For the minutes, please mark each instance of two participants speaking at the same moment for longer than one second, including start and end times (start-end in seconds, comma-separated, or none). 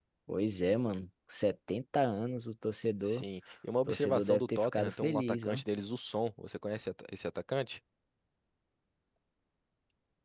3.9-5.6